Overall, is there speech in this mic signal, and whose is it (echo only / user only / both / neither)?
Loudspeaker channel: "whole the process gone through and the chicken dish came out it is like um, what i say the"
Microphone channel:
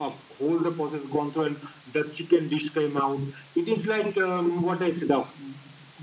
echo only